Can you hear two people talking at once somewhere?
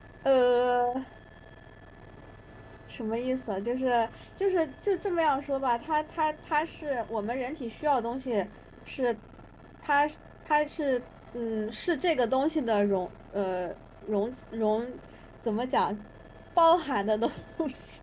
No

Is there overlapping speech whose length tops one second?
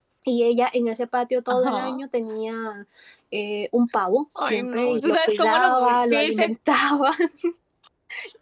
Yes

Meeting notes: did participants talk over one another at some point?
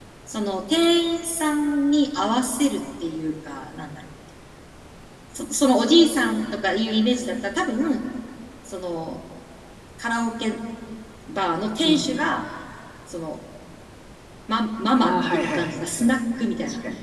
Yes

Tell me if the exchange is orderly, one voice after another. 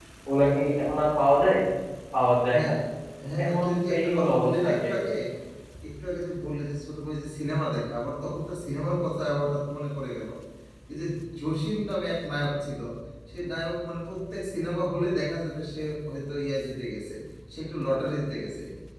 No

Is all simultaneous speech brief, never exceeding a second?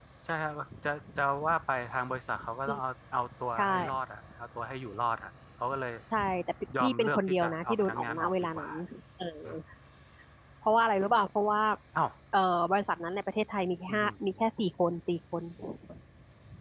No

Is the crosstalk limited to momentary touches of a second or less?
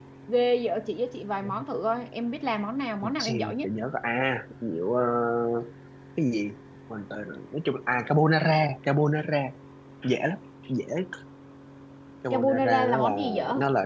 No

